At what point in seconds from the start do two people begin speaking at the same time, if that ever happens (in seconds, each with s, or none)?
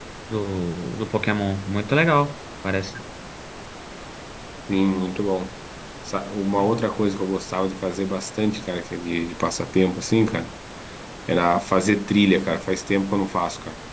none